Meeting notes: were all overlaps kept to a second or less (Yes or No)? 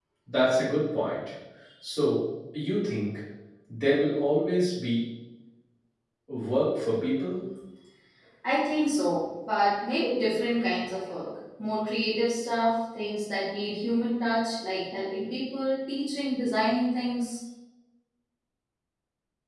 Yes